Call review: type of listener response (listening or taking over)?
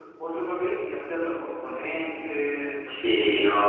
taking over